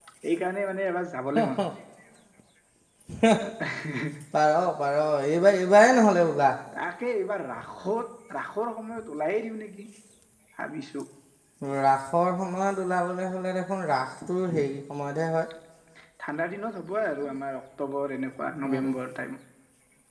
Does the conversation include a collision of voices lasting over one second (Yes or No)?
No